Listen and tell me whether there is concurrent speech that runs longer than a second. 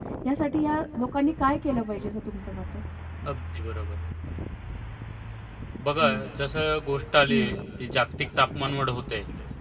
No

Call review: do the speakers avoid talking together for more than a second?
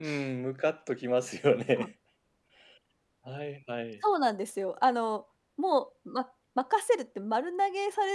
Yes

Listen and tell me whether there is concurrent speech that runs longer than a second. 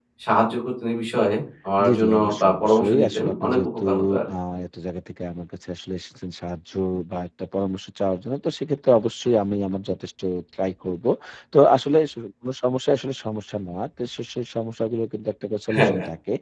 Yes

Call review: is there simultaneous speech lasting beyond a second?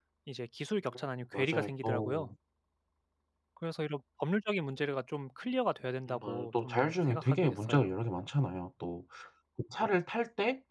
Yes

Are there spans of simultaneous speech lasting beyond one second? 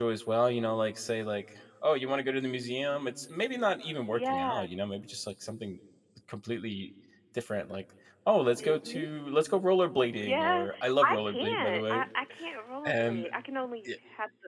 Yes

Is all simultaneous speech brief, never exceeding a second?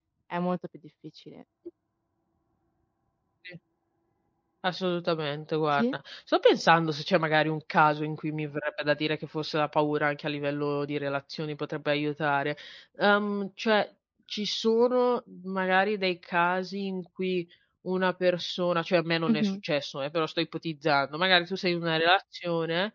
Yes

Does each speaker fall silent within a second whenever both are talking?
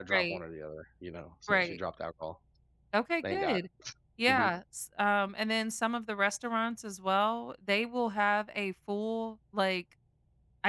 Yes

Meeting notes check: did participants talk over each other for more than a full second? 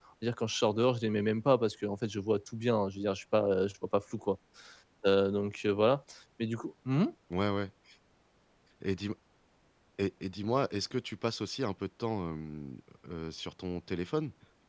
No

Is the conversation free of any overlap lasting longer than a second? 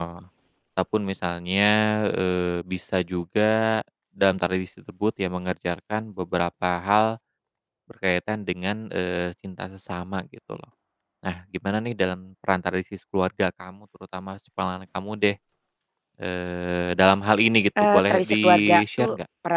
No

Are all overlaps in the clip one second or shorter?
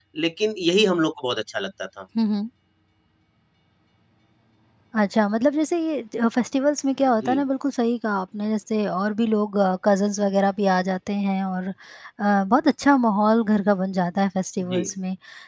Yes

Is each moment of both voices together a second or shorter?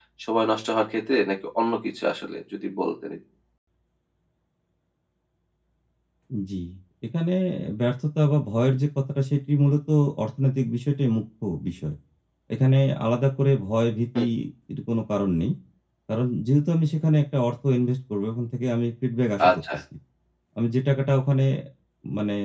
Yes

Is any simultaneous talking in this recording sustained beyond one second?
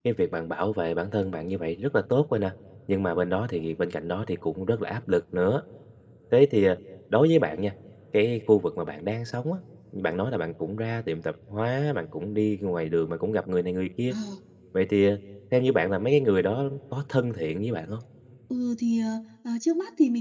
No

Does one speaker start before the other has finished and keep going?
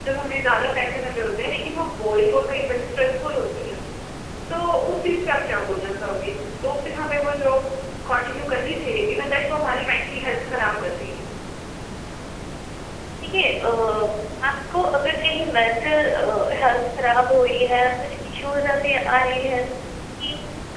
No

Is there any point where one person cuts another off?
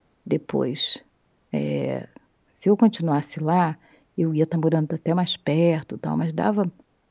No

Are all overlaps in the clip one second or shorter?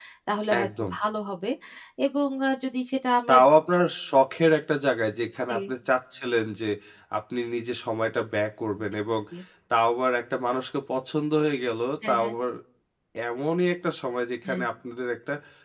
Yes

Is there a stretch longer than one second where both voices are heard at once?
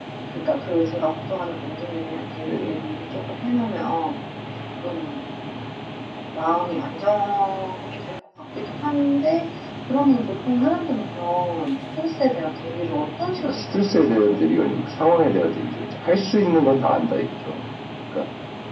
Yes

